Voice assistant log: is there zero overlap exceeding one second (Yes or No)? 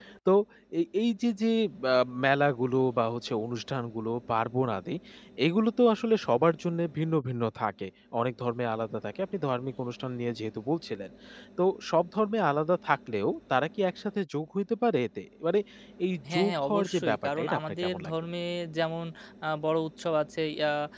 No